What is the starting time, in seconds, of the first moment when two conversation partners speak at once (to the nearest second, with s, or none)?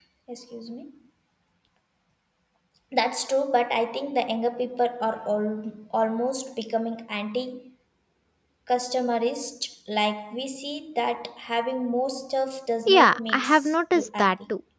13 s